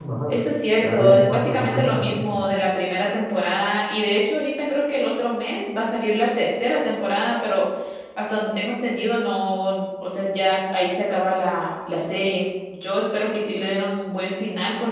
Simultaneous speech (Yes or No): Yes